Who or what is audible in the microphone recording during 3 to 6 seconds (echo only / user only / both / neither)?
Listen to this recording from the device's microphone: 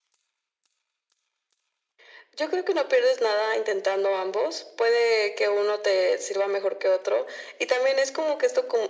echo only